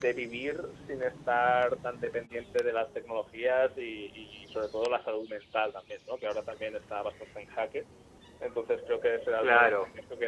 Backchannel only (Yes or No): Yes